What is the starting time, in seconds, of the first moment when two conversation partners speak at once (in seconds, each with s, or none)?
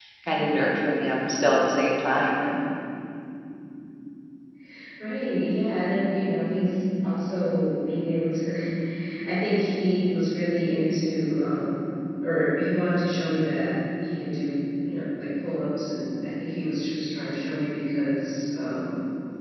none